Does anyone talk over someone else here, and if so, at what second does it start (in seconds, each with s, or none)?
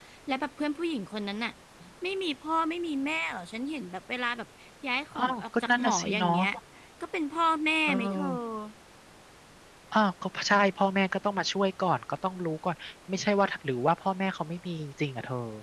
5.2 s